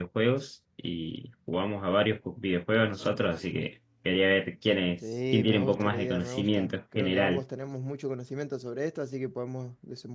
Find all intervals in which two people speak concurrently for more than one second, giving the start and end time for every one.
5.0-7.4

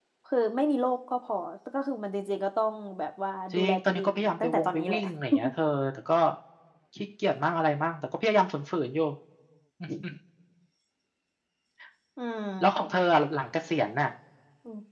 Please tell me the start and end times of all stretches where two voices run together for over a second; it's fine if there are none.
3.5-5.0

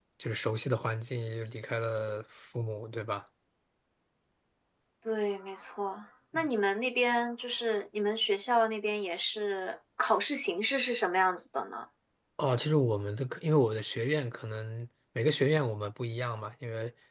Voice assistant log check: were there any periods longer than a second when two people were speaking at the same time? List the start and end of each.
none

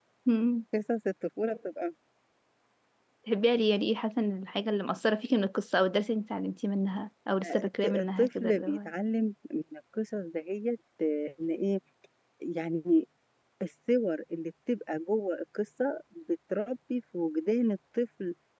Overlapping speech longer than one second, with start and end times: 7.4-8.9

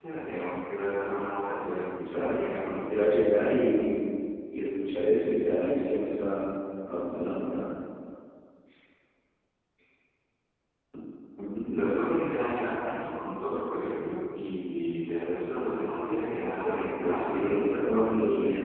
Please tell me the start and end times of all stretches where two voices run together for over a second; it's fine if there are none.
16.6-18.1

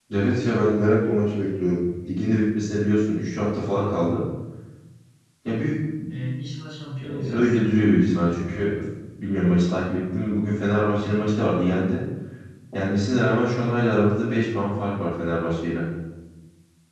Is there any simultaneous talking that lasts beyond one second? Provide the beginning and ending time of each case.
none

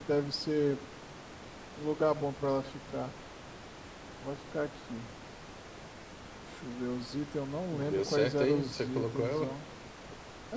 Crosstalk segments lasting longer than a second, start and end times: 7.7-9.5

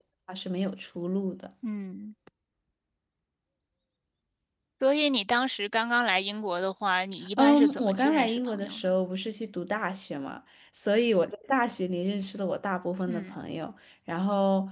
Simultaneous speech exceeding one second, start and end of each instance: 7.4-8.9

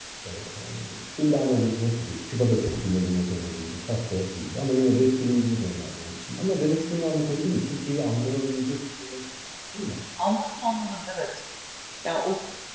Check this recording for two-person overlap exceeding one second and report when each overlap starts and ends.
none

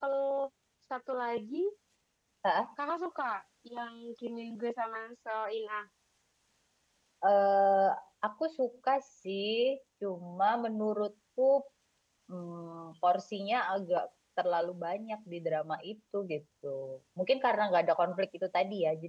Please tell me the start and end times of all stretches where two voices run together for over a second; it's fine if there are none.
none

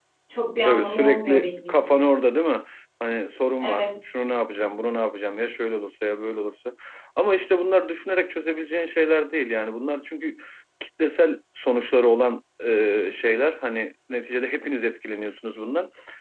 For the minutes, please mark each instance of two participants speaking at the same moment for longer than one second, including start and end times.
0.6-2.0

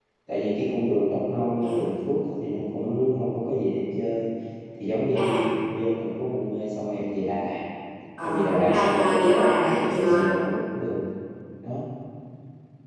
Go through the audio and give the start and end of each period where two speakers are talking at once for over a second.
8.2-10.2

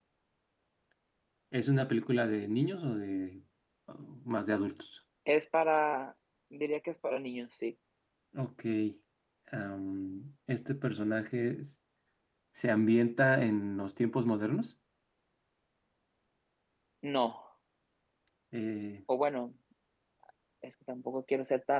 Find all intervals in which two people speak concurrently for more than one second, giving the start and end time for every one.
none

